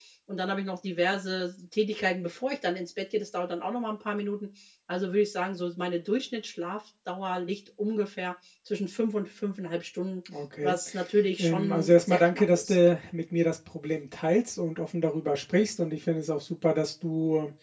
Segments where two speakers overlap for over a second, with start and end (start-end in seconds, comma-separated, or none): 11.4-12.8